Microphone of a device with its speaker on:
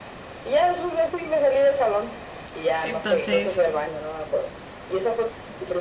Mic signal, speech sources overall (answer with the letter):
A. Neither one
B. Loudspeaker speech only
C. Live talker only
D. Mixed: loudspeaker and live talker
D